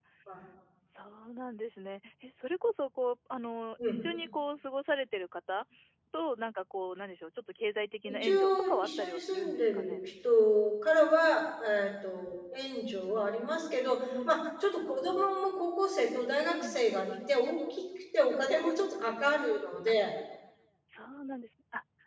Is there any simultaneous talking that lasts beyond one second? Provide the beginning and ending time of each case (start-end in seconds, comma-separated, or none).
8.1-10.0